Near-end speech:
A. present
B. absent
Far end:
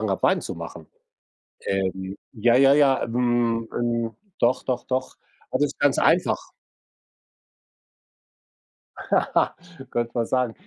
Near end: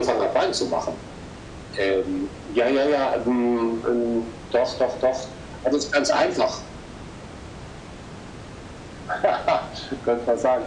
B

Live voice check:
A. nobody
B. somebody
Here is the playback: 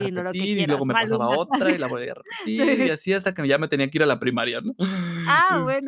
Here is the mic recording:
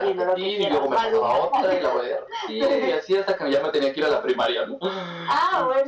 A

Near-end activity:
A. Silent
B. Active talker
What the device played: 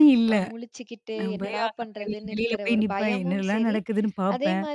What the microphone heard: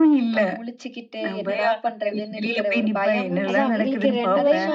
B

